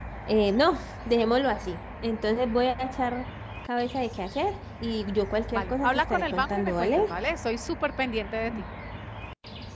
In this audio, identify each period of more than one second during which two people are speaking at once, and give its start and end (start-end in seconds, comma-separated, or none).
5.5-7.0